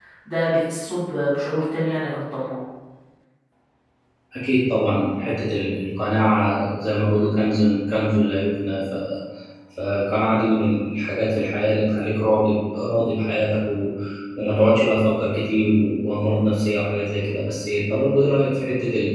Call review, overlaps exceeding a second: none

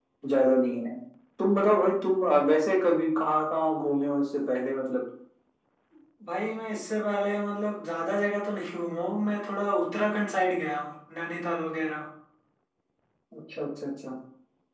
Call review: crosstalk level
none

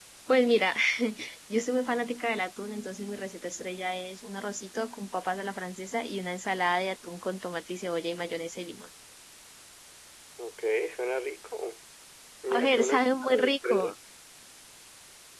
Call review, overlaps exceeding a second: present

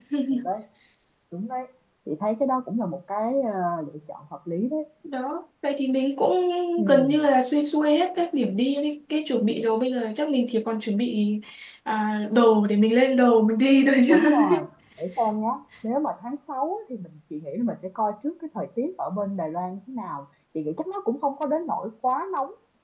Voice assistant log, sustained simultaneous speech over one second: none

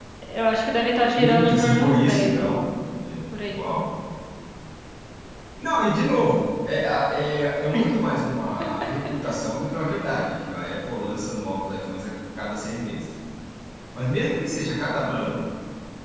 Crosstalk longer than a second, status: present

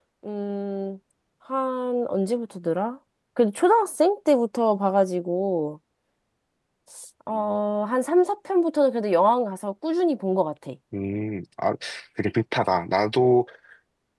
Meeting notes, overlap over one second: none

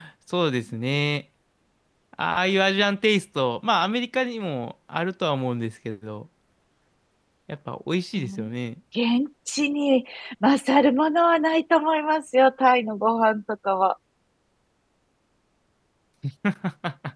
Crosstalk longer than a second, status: none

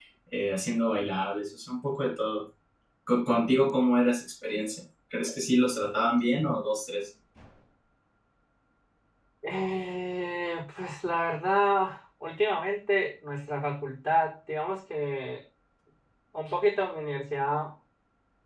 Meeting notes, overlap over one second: none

